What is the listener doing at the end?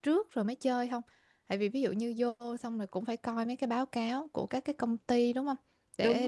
listening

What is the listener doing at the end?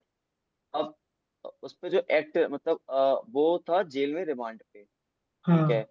listening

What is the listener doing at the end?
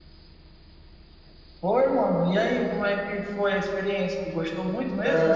taking over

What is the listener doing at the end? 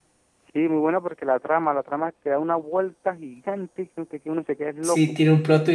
taking over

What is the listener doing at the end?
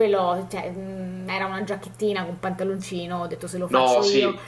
listening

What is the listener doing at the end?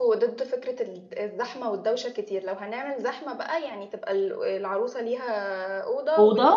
listening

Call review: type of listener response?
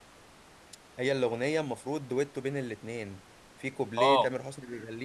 listening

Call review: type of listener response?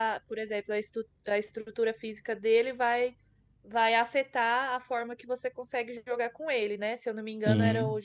listening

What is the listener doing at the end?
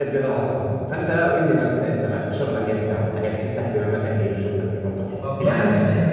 taking over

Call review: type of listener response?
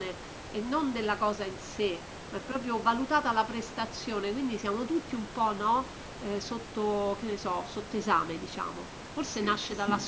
listening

